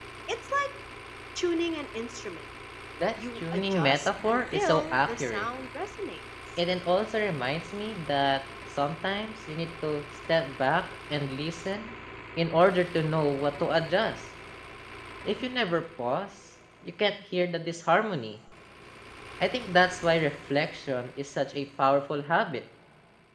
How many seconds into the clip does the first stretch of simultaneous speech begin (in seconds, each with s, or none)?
3.4 s